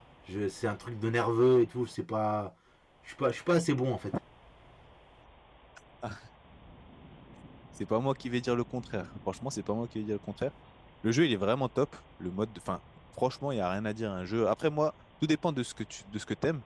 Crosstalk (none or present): none